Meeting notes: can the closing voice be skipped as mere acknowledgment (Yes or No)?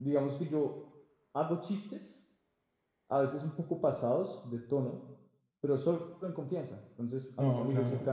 Yes